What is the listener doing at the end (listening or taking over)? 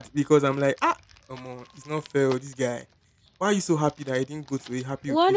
taking over